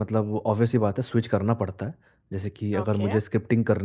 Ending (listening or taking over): listening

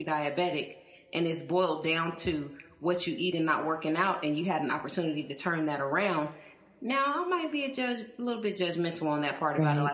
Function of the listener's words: listening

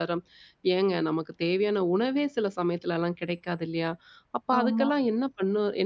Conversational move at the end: listening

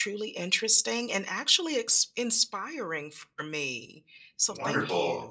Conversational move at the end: taking over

